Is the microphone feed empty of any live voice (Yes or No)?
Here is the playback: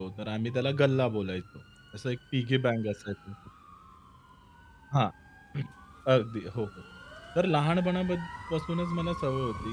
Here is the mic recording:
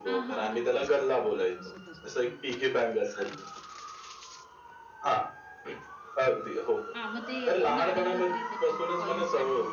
No